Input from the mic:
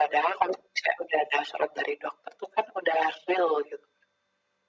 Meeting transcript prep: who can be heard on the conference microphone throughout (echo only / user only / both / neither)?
echo only